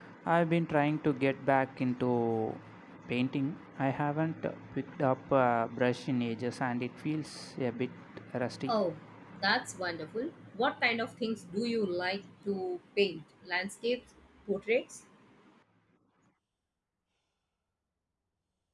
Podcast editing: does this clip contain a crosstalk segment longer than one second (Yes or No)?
No